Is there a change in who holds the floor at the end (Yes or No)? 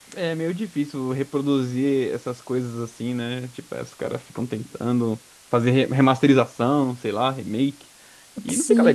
Yes